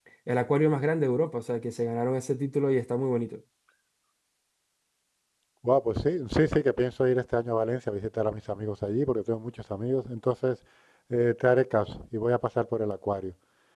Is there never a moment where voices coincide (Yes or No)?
Yes